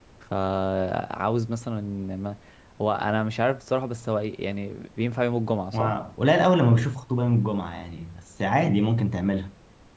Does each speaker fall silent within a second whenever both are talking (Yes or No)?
Yes